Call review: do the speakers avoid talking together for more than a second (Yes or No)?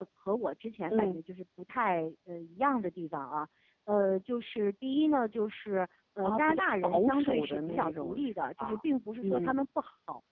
No